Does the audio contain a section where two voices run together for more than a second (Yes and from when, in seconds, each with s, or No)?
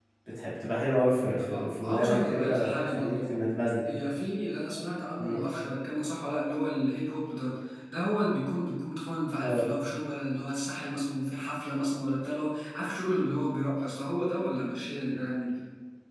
Yes, from 1.4 s